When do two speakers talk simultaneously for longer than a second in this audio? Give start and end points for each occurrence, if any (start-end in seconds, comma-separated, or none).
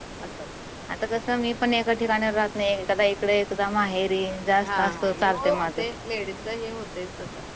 4.6-5.8